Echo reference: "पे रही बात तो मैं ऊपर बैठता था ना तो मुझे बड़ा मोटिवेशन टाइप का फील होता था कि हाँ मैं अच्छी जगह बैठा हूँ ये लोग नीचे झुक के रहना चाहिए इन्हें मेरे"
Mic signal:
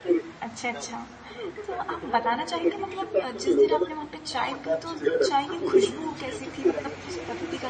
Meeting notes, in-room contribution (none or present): present